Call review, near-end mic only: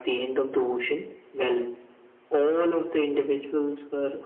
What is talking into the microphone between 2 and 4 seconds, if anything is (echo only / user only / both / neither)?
echo only